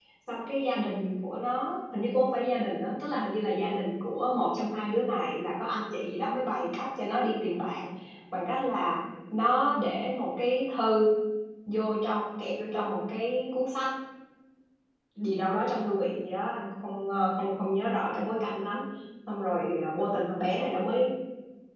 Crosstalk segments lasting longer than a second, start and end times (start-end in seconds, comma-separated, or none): none